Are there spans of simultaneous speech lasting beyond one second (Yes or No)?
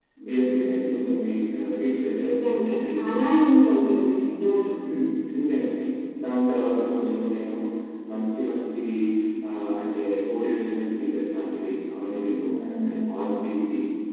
Yes